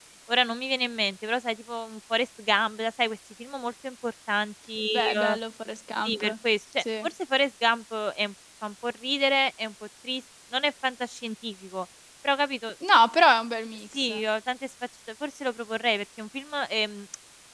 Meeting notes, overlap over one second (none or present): none